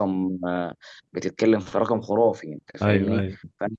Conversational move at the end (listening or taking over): listening